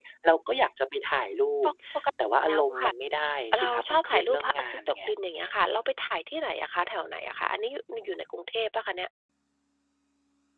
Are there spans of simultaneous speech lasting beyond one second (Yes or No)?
Yes